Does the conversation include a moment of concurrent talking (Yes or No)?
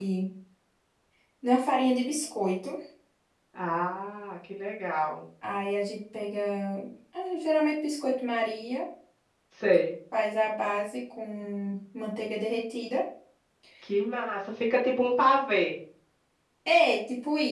No